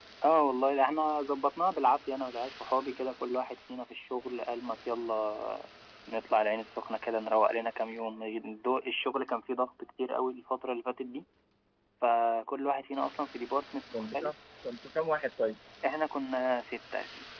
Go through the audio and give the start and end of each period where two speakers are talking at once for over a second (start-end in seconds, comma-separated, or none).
none